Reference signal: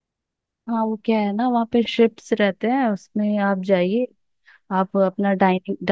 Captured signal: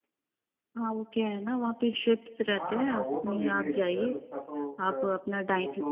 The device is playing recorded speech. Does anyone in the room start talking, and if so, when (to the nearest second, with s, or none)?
2 s